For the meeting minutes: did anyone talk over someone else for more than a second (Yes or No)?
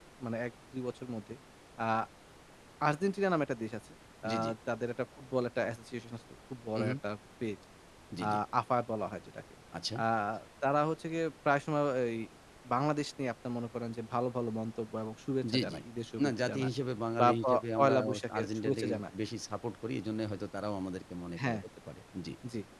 Yes